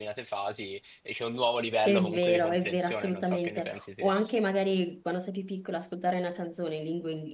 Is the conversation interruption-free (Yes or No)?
No